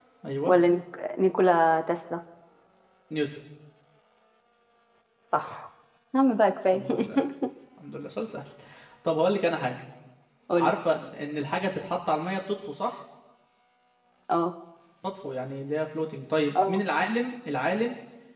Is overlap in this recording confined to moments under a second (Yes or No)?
Yes